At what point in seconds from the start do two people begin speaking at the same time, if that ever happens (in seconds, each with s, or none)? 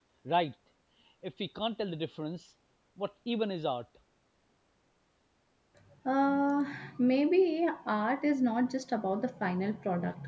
none